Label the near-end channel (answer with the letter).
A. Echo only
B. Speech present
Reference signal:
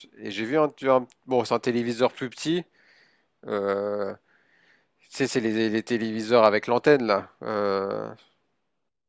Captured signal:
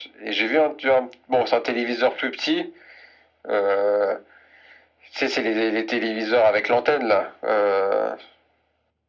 A